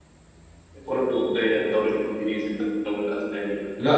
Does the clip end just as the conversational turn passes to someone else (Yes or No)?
Yes